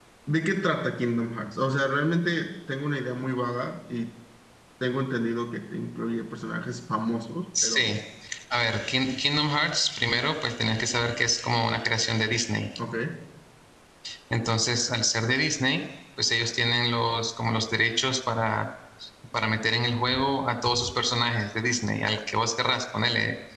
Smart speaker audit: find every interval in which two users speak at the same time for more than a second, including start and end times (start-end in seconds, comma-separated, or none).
none